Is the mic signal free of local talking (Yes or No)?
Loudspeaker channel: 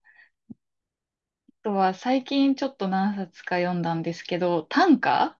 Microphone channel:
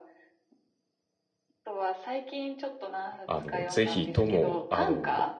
No